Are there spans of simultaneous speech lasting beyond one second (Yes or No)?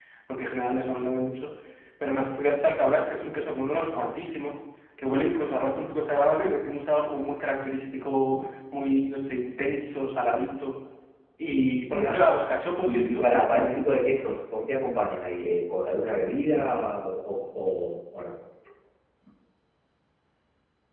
Yes